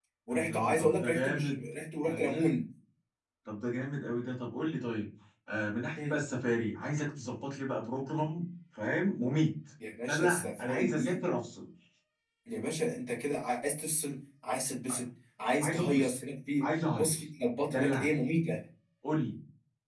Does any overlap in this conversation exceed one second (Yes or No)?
Yes